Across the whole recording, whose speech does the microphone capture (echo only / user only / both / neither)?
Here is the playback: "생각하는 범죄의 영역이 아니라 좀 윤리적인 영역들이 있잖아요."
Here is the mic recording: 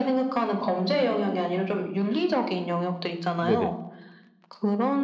both